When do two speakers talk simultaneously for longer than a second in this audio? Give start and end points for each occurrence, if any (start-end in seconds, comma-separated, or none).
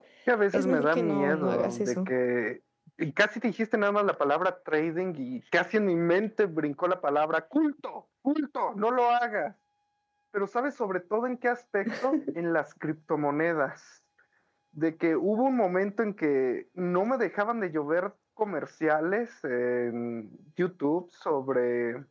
0.5-2.1